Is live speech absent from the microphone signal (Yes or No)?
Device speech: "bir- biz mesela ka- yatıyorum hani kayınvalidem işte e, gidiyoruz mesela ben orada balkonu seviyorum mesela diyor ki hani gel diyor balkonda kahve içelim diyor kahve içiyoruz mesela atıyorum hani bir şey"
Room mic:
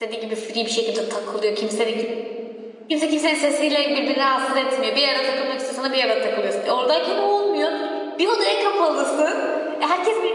No